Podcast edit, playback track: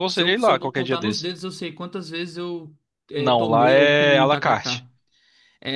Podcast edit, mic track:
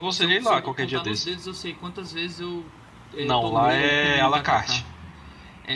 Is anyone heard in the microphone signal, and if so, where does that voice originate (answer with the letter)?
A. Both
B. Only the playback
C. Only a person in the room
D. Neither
B